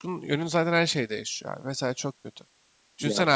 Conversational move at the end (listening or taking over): listening